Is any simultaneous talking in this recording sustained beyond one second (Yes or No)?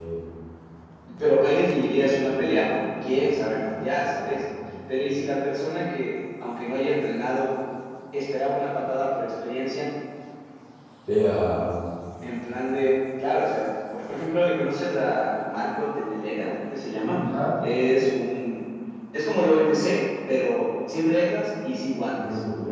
No